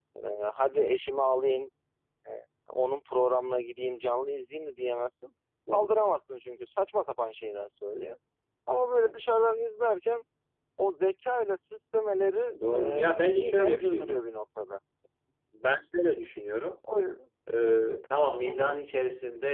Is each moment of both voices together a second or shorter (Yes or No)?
No